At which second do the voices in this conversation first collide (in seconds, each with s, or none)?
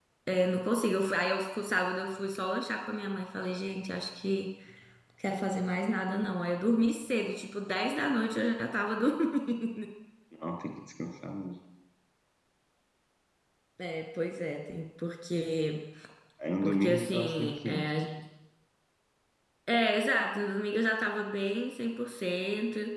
16.6 s